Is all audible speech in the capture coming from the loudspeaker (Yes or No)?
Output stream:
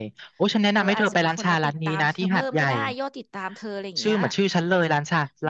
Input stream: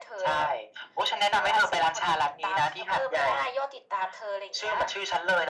Yes